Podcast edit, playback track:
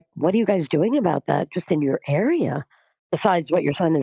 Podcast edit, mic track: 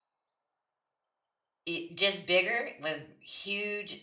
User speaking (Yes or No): Yes